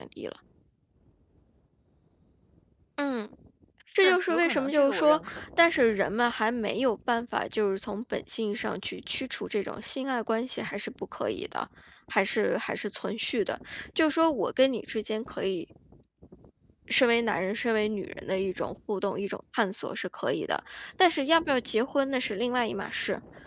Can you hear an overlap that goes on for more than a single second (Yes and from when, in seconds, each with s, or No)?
Yes, from 4.0 s